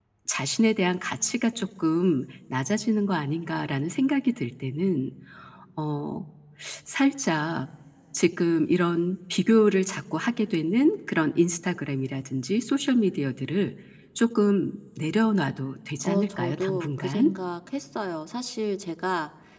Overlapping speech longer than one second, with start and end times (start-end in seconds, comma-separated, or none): 16.0-17.3